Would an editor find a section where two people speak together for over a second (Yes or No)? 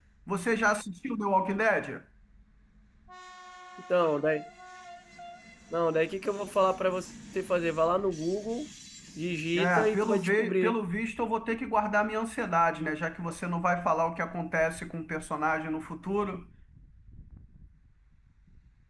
Yes